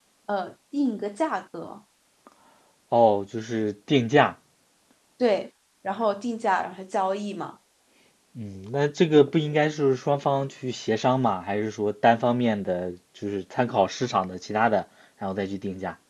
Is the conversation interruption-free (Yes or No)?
Yes